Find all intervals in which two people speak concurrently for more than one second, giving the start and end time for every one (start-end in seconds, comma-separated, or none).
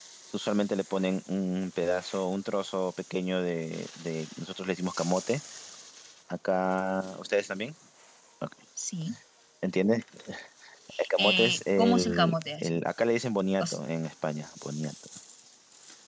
11.2-12.8